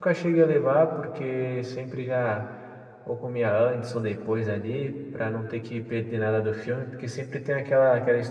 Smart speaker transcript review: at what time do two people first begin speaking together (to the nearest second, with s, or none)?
none